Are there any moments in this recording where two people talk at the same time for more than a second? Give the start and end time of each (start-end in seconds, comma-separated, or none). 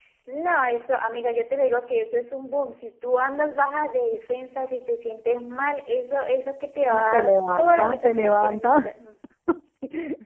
7.1-8.9